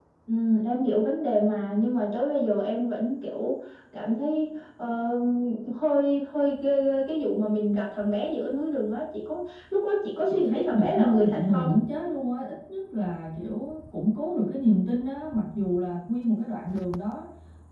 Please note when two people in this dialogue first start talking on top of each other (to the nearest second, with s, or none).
10 s